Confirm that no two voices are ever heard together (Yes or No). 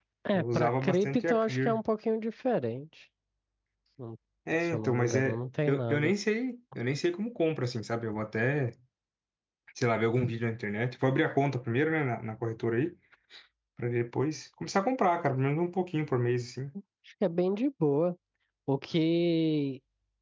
No